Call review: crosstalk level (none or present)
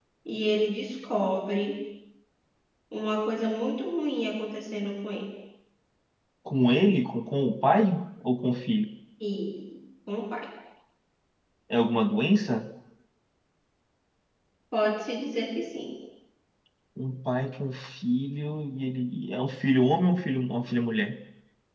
none